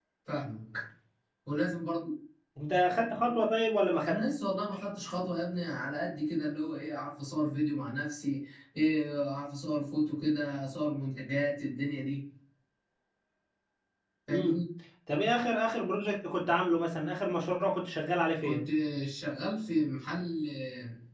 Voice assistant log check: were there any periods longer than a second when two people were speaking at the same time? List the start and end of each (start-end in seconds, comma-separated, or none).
none